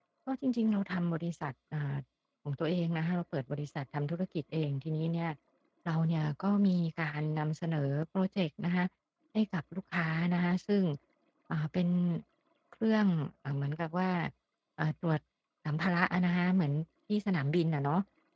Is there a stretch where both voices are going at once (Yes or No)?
No